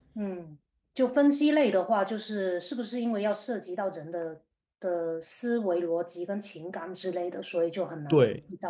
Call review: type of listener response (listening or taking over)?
taking over